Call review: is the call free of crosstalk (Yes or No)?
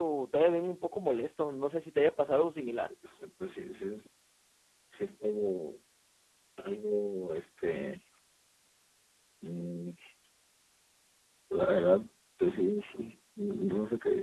Yes